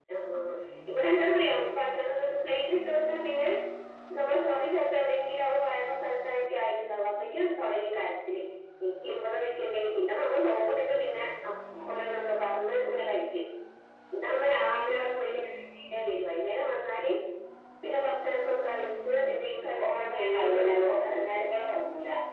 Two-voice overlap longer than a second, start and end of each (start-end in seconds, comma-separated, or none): 19.8-21.2